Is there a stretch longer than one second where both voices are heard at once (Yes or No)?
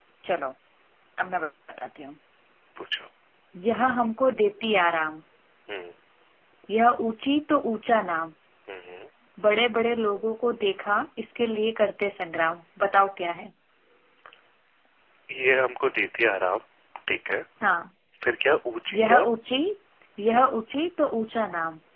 No